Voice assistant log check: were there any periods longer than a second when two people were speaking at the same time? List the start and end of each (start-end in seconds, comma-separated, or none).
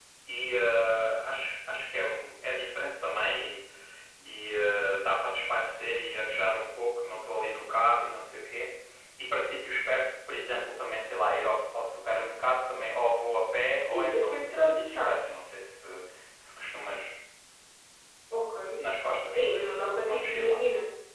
13.9-15.2